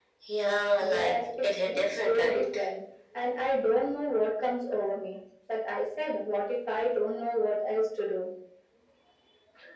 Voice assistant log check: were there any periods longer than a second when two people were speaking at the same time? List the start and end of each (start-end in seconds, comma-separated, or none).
0.8-2.6